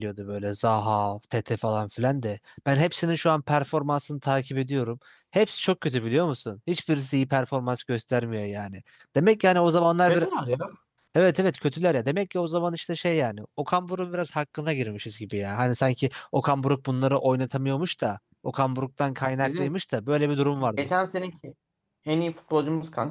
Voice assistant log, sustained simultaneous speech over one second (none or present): none